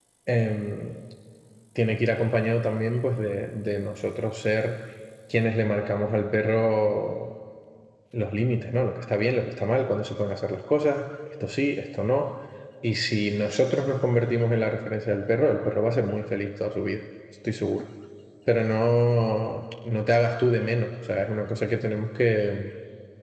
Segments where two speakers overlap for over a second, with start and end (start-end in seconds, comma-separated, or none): none